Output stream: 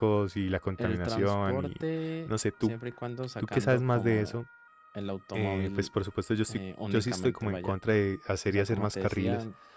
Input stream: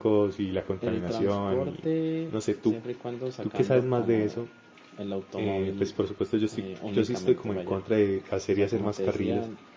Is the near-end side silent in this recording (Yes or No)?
Yes